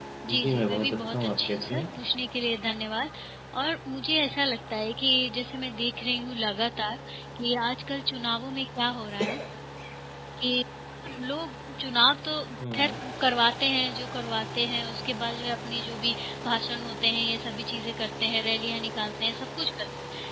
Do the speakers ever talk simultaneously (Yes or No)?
Yes